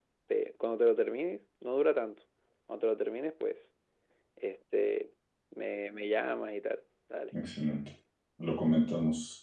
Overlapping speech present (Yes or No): No